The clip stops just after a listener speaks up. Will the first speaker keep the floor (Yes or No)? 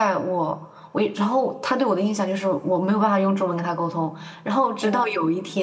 Yes